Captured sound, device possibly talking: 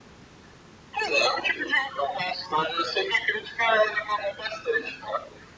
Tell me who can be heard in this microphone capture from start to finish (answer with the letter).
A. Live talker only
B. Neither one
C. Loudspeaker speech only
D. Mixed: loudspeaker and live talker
C